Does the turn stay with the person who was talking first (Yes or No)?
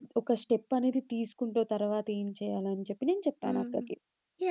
No